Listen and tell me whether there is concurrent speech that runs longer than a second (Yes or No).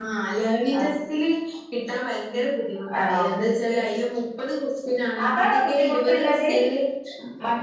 Yes